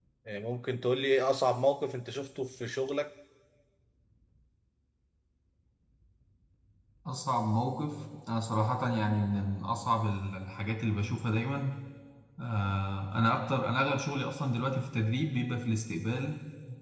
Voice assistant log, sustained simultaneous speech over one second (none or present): none